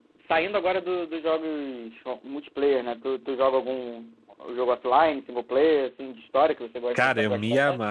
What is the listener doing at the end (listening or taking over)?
taking over